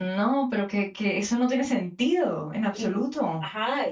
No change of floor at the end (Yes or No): No